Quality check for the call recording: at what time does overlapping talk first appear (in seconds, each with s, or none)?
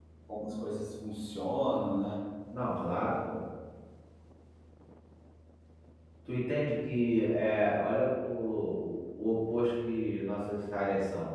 none